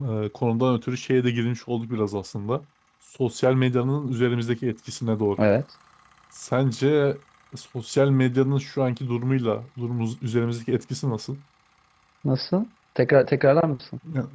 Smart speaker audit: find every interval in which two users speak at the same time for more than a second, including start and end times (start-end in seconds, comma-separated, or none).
none